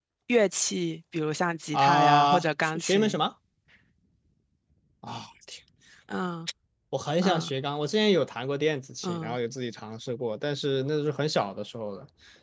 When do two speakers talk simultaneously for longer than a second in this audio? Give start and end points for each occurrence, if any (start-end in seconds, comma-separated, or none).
1.7-3.2